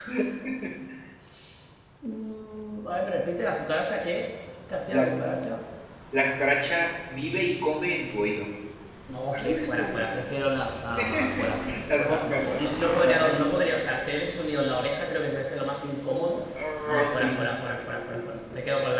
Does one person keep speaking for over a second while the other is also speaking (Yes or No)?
Yes